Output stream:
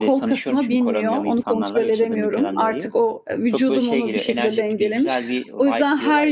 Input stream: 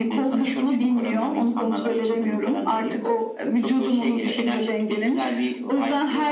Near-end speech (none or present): none